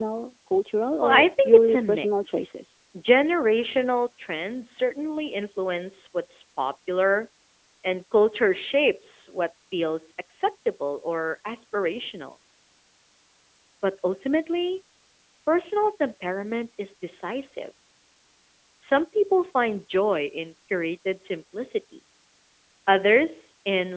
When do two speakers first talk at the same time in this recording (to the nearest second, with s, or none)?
1 s